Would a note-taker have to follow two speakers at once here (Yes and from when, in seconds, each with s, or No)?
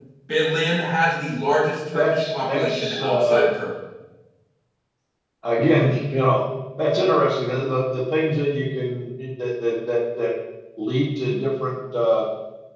Yes, from 1.9 s